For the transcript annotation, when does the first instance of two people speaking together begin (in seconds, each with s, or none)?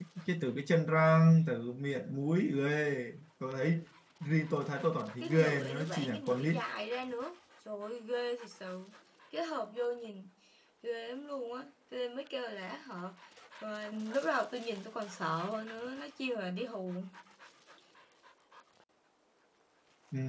5.2 s